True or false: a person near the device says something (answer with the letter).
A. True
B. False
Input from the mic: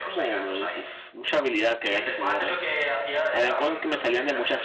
A